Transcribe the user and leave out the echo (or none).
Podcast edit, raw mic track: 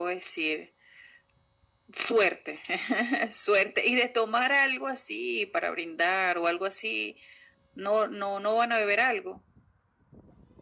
none